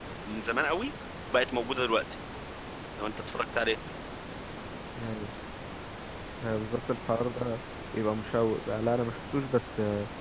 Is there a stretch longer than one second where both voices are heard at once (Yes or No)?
No